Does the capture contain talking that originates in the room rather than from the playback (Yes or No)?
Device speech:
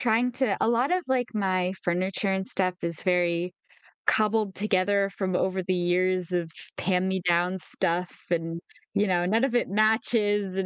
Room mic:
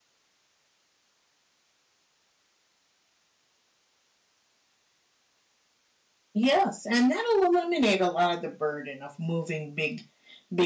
Yes